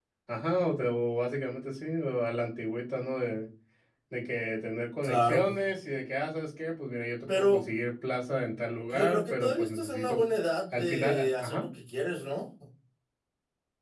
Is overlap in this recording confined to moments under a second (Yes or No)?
No